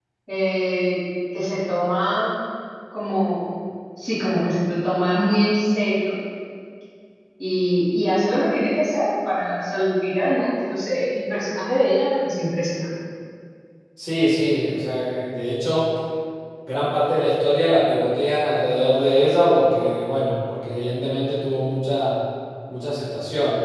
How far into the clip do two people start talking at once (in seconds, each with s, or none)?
none